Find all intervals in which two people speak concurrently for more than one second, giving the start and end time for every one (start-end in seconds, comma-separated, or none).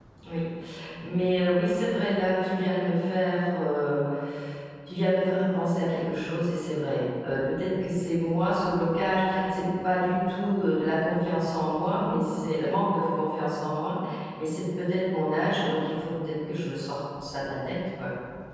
none